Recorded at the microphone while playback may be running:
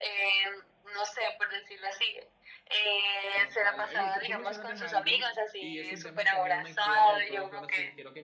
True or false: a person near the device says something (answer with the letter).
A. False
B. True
B